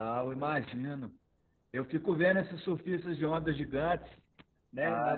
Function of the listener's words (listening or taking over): taking over